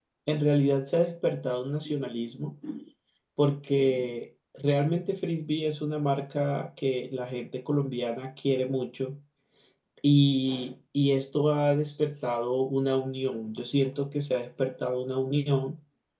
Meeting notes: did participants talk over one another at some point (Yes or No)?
No